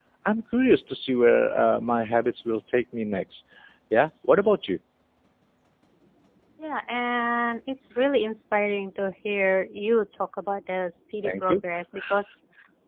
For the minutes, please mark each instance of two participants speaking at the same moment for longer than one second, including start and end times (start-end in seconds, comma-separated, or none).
none